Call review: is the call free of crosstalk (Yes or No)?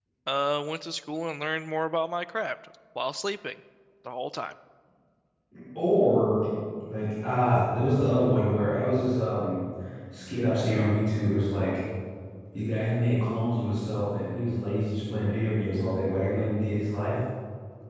Yes